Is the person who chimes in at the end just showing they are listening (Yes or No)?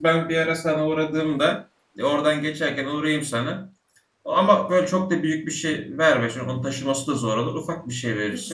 No